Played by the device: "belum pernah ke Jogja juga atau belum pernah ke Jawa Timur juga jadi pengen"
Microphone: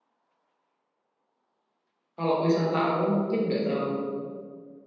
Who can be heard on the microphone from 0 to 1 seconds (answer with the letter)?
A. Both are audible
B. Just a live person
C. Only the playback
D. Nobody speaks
D